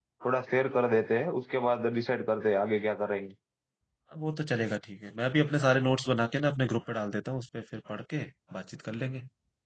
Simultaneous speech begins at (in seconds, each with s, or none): none